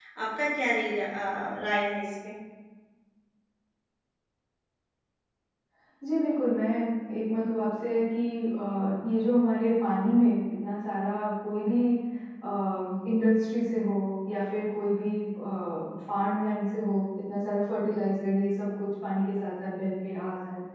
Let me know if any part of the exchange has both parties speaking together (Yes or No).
No